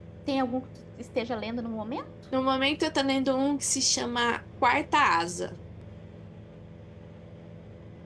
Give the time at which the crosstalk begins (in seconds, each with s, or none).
none